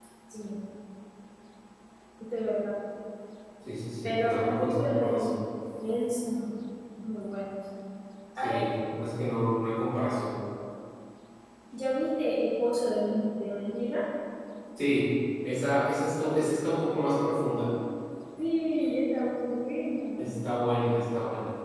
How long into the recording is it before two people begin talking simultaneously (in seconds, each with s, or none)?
4.0 s